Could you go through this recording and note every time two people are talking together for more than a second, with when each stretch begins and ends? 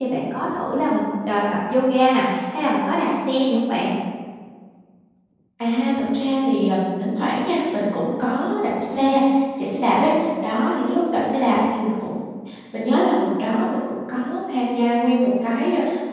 none

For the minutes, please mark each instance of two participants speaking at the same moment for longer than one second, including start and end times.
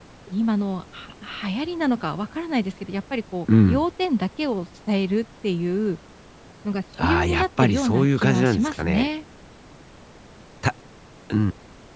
7.0-9.1

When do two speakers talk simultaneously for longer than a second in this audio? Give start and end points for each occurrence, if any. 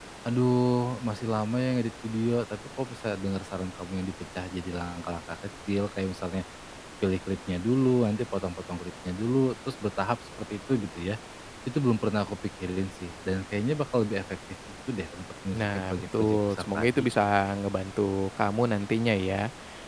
15.5-17.0

